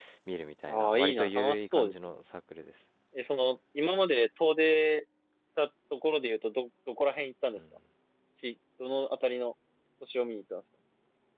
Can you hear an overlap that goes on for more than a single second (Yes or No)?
Yes